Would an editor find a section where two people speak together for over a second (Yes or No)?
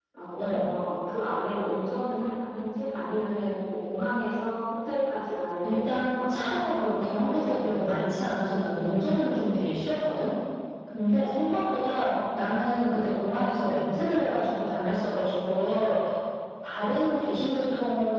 Yes